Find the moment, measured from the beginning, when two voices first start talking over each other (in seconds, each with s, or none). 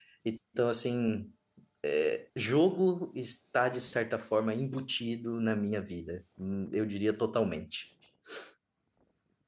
none